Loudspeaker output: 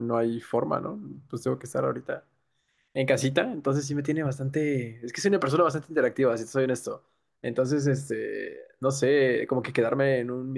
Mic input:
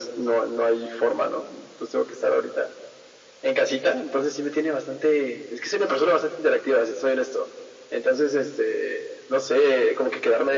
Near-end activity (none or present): none